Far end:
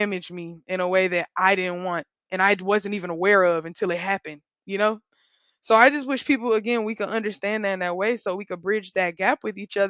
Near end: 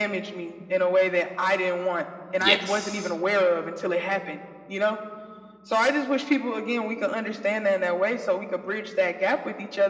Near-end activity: present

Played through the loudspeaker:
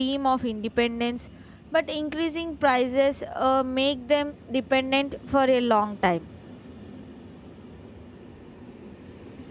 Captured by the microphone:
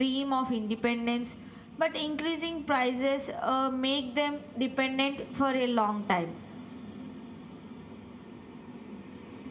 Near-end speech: none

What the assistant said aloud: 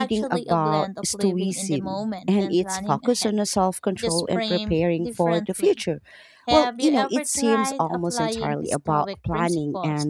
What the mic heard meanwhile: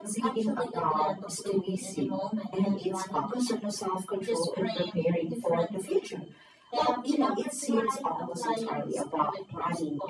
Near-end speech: none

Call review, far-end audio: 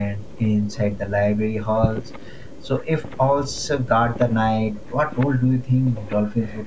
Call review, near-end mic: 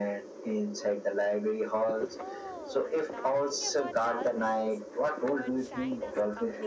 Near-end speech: present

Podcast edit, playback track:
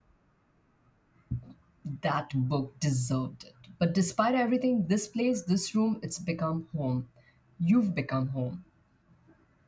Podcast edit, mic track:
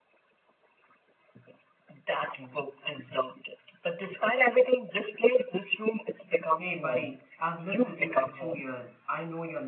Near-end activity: present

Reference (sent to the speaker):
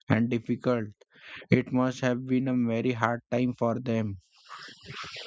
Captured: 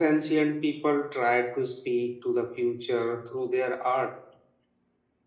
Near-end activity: present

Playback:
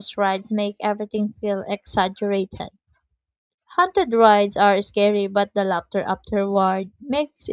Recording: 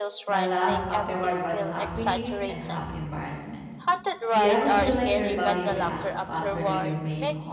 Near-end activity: present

